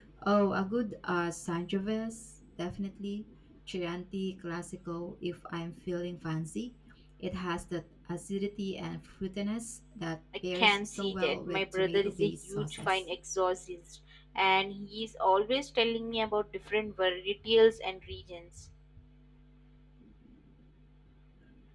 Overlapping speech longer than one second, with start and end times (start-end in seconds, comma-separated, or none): 10.5-13.0